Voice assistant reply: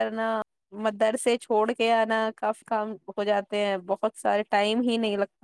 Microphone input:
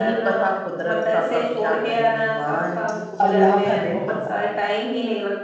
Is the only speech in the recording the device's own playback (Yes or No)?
No